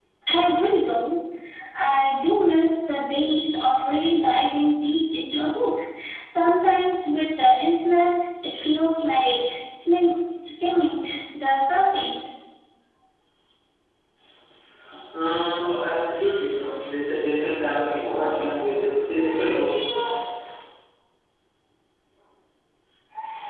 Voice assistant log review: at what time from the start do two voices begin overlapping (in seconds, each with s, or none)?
none